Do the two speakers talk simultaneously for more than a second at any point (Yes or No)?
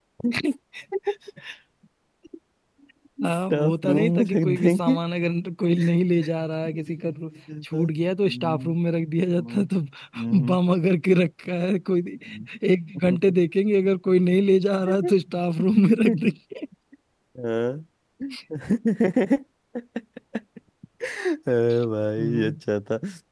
Yes